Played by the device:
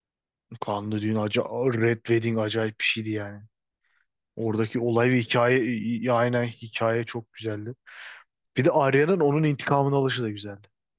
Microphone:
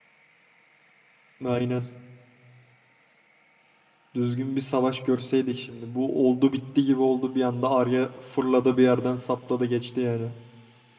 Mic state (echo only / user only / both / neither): user only